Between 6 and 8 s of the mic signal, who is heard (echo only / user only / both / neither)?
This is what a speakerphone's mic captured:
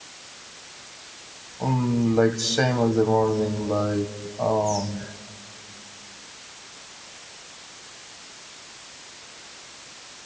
neither